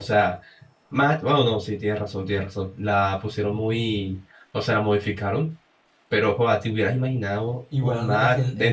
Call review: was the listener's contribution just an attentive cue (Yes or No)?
No